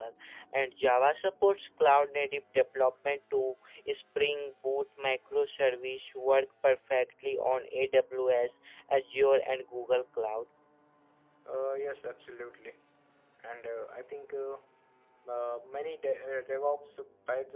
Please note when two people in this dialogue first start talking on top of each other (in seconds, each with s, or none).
none